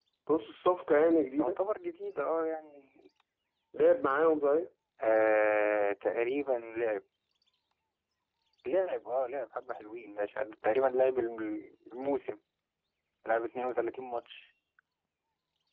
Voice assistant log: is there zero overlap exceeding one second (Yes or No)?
Yes